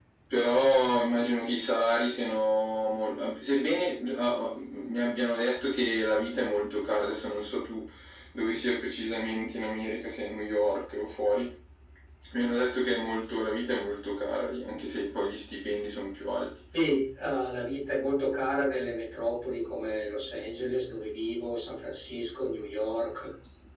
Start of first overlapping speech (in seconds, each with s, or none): none